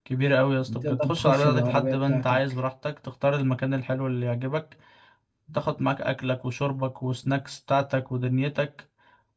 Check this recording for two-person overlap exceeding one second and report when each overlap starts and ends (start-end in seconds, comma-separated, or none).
0.8-2.4